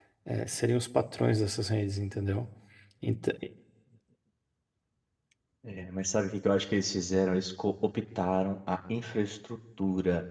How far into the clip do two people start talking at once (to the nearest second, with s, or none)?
none